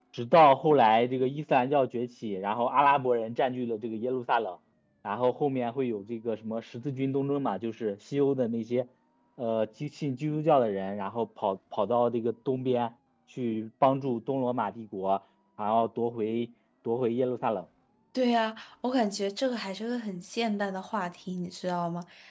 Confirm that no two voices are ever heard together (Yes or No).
Yes